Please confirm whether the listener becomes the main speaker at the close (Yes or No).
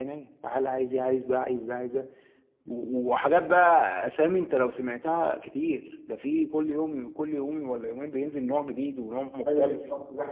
Yes